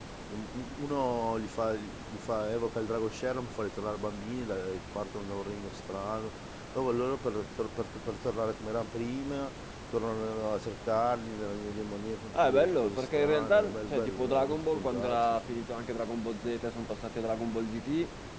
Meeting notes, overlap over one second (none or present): present